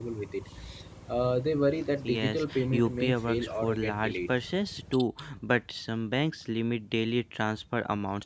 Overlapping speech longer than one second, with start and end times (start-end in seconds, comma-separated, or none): 2.0-4.3